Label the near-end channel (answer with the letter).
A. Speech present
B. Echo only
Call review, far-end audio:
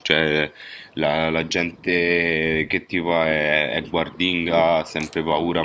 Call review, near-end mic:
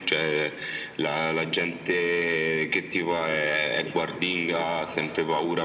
B